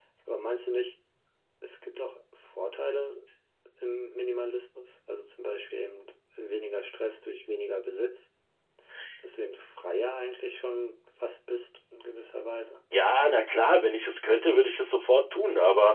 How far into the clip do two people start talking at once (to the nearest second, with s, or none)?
none